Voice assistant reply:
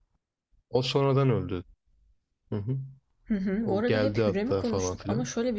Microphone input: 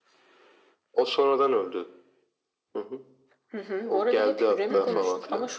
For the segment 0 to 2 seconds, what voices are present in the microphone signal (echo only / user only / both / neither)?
echo only